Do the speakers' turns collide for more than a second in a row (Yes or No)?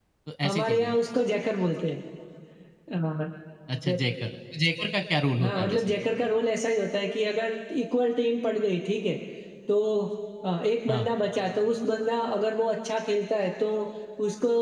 No